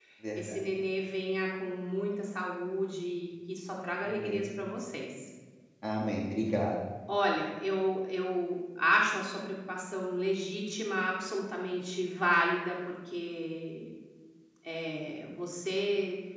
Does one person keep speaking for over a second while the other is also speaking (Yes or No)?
No